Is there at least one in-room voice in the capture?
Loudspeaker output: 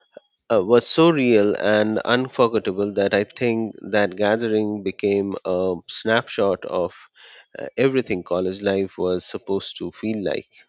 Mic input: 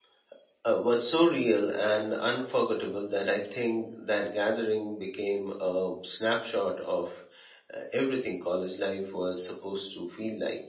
No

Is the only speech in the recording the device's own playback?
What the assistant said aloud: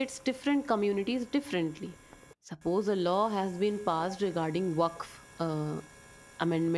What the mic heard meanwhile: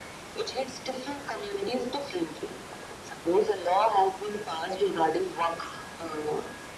Yes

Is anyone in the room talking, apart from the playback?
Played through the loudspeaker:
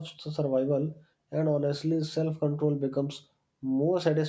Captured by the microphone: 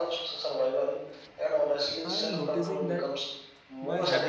Yes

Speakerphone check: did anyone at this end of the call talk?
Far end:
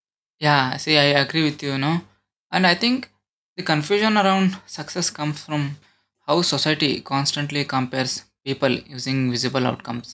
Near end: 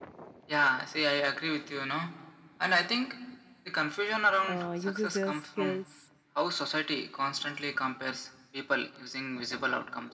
Yes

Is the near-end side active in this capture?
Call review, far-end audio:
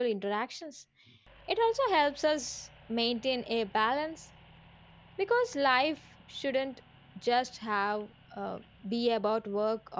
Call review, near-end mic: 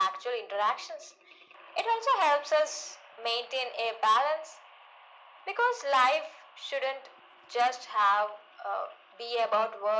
No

